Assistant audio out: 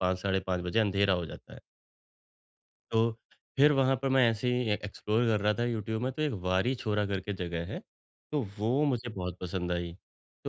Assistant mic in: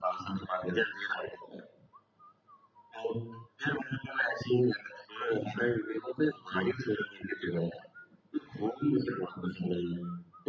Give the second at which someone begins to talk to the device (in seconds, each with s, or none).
none